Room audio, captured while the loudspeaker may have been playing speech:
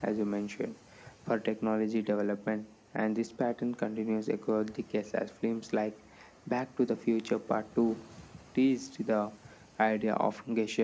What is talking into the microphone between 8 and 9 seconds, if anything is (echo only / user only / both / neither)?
echo only